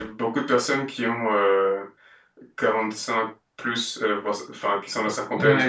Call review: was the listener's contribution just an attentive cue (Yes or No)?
No